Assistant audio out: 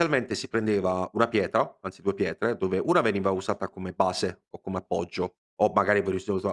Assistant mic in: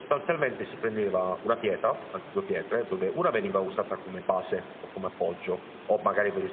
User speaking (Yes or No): No